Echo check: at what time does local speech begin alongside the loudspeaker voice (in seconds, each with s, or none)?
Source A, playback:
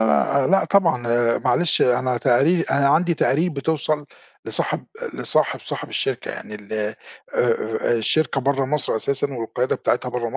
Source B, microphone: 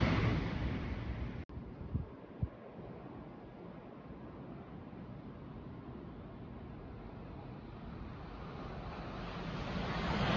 none